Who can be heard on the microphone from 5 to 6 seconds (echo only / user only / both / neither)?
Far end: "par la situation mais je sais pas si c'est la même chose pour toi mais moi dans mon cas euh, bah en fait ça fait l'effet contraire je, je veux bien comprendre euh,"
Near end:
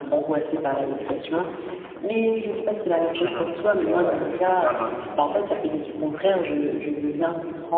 both